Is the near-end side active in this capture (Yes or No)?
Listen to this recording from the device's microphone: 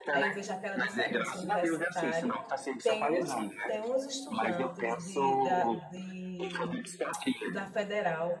Yes